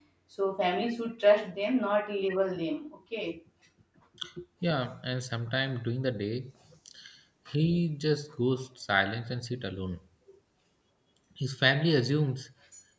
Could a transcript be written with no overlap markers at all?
Yes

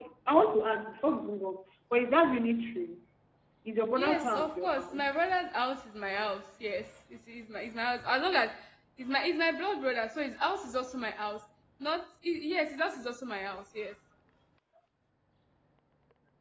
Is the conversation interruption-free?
No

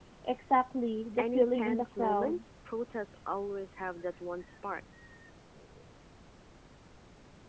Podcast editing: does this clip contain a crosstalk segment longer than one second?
Yes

